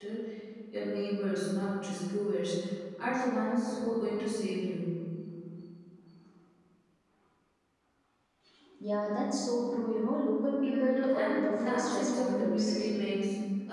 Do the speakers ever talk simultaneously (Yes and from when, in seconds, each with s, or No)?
Yes, from 10.6 s